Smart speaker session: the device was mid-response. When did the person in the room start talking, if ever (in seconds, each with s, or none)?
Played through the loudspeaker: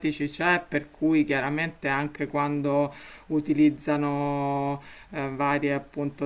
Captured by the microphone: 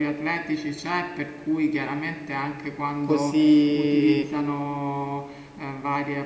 3.0 s